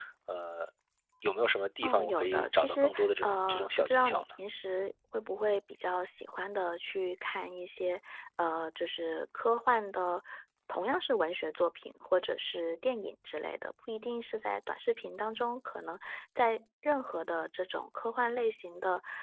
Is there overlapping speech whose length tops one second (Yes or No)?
Yes